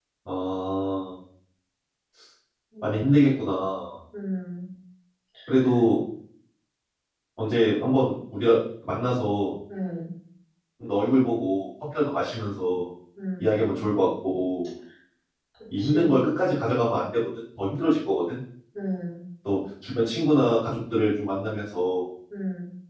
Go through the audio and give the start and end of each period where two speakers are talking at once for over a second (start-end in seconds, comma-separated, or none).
none